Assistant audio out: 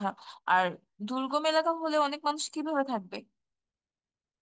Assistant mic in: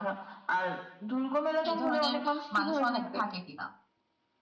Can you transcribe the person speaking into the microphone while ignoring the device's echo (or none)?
এই ধরনের মানুষ অনেক থাকে কিনা